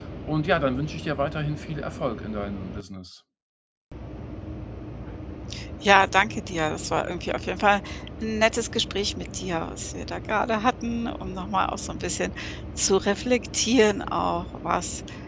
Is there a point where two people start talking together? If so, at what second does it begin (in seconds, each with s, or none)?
none